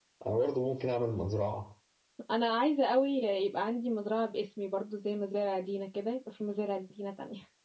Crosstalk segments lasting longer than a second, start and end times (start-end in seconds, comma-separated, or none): none